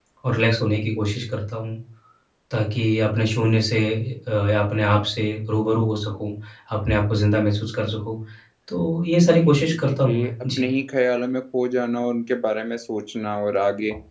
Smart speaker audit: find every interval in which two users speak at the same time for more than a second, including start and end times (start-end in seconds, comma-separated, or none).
9.2-10.7